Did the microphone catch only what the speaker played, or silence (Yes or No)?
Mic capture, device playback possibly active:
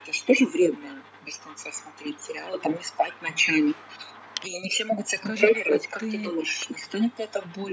No